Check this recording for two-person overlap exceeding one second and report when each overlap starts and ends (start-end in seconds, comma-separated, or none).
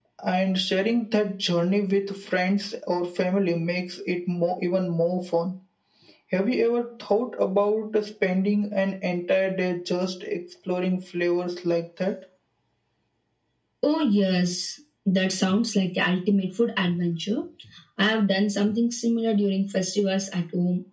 none